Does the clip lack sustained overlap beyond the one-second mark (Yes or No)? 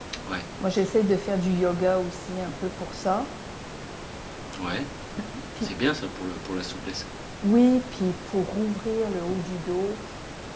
Yes